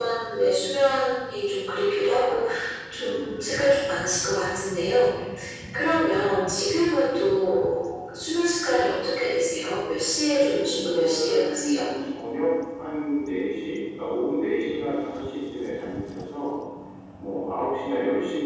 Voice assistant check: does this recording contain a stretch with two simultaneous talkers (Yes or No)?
Yes